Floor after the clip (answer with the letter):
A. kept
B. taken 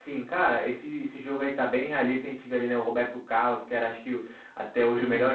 A